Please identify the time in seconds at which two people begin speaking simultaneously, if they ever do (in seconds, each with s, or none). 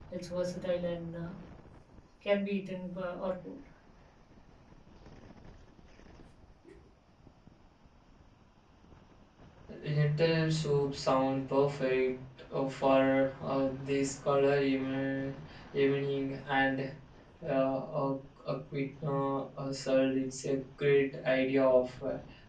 none